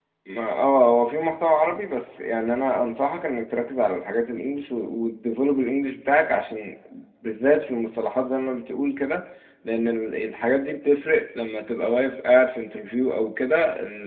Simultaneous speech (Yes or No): No